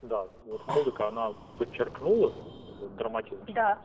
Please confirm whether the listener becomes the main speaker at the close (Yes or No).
Yes